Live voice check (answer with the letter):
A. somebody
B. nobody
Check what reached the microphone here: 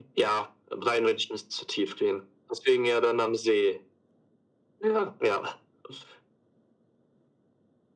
B